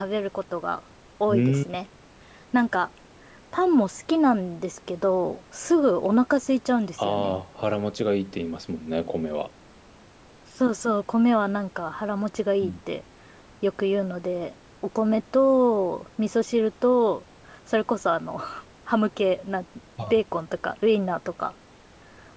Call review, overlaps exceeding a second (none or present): none